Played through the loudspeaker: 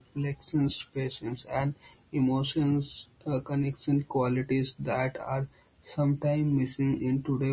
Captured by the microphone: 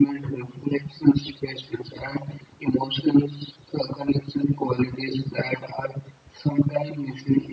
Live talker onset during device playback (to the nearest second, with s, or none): none